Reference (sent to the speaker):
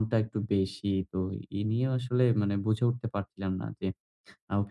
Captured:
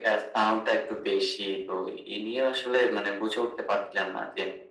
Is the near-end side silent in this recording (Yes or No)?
Yes